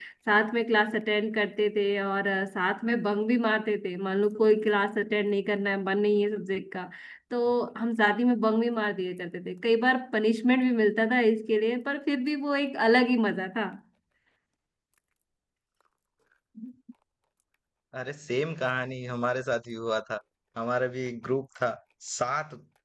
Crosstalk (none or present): none